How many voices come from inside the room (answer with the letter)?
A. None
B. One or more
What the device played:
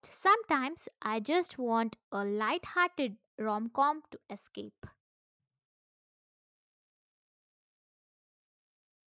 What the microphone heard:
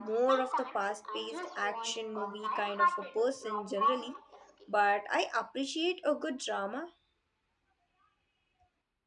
B